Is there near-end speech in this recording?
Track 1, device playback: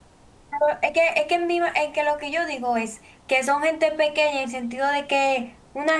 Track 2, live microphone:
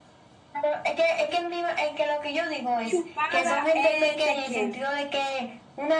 Yes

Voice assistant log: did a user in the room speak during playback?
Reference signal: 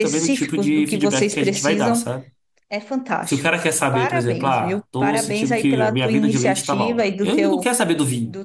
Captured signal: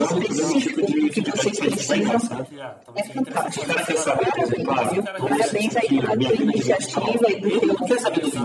Yes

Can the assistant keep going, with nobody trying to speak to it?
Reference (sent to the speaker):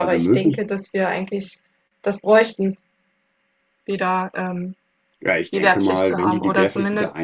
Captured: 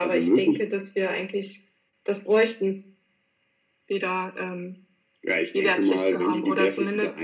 Yes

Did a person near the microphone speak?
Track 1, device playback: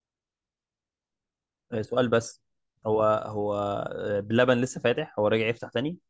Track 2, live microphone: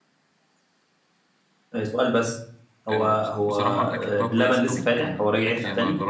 Yes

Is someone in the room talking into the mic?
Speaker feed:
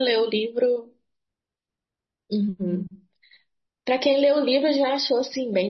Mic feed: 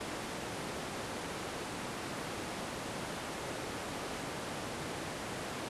No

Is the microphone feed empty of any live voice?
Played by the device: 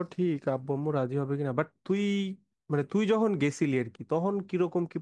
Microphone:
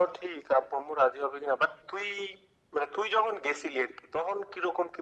Yes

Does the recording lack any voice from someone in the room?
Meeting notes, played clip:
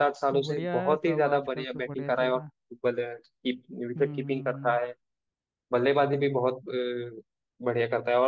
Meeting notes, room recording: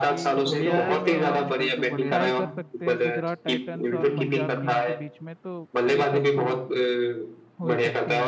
No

